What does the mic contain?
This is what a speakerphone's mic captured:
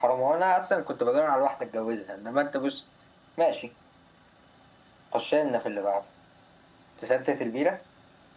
echo only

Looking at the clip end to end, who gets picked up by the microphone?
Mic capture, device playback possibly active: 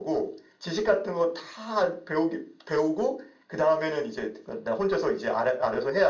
echo only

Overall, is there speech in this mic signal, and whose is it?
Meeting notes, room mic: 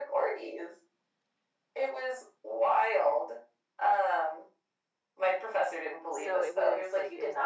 both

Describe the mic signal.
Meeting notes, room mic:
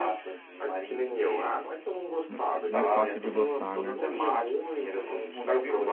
both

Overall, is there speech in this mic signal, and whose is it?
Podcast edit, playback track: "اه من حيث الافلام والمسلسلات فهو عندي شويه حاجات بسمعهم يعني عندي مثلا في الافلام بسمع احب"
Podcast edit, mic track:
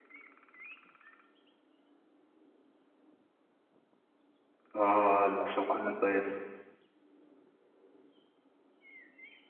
user only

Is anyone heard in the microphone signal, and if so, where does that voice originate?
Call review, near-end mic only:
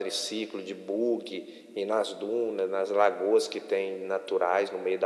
echo only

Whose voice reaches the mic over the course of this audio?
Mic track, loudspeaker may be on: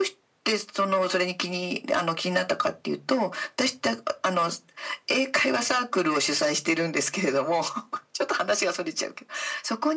echo only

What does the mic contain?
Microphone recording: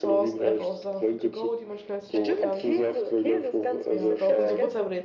both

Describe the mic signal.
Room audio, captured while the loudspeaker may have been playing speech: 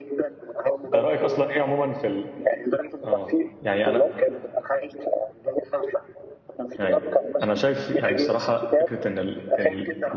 both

